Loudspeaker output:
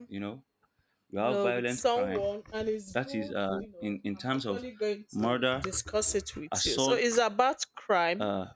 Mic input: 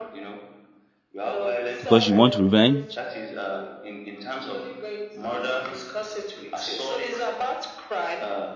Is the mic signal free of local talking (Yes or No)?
No